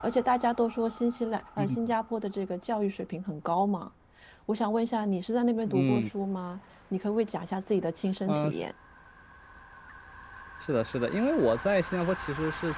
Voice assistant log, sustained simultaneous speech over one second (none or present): none